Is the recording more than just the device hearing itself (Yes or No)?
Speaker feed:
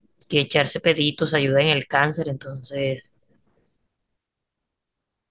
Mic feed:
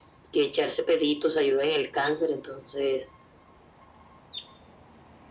No